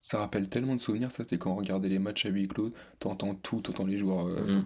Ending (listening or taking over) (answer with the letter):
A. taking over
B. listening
A